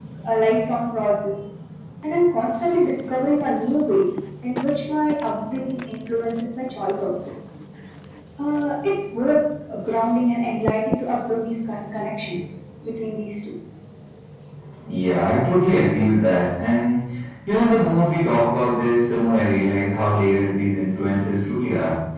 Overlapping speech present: No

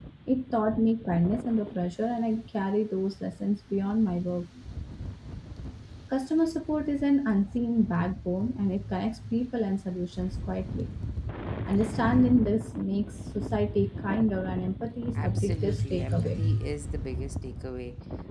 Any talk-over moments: Yes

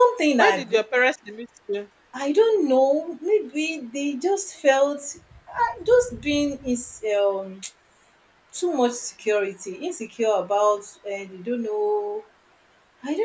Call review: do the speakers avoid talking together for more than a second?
Yes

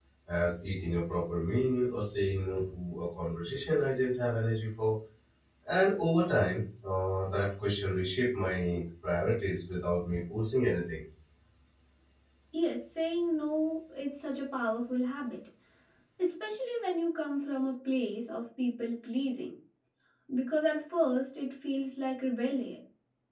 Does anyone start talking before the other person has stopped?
No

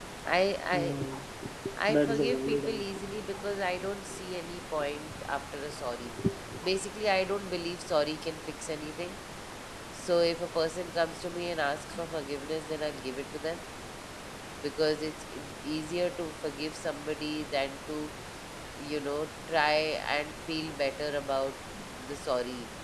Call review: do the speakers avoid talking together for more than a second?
No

